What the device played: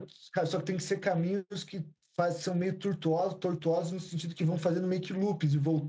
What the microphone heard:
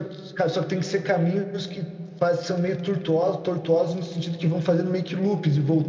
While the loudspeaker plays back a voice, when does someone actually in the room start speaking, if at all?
none

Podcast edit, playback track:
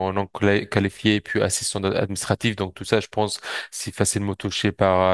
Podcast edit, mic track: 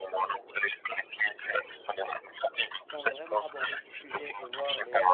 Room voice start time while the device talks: 2.8 s

